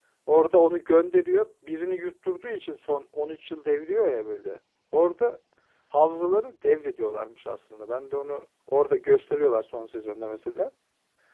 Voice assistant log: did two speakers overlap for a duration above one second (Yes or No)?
No